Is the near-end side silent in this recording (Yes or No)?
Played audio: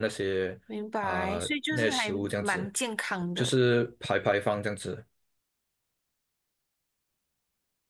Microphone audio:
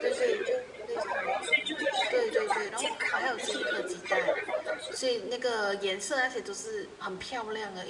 No